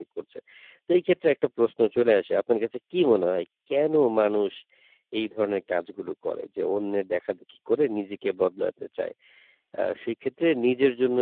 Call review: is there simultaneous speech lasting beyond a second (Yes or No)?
No